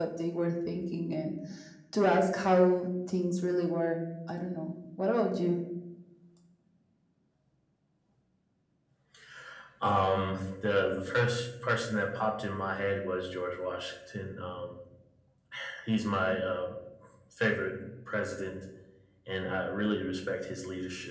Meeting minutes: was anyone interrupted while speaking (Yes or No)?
No